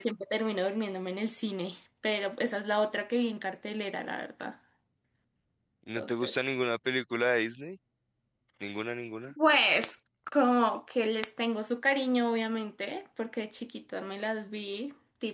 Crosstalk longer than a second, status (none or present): none